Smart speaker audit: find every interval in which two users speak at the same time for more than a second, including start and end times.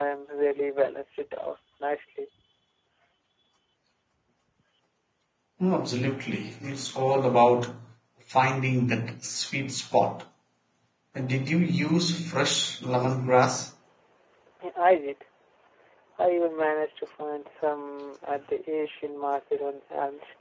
none

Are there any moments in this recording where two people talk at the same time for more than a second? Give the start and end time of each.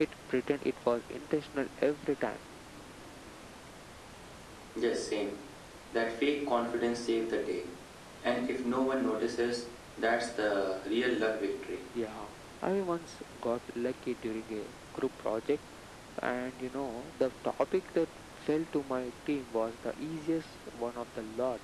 none

